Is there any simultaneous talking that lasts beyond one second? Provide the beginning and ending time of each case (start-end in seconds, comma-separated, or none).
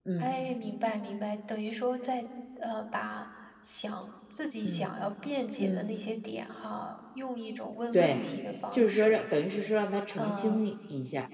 none